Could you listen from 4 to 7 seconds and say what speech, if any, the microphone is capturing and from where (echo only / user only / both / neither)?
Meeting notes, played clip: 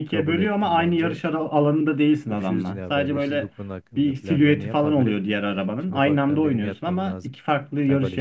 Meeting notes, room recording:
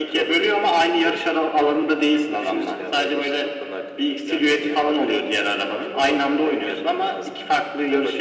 echo only